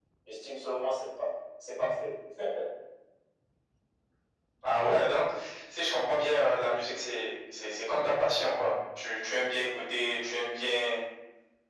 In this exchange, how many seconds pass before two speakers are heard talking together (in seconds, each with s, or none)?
none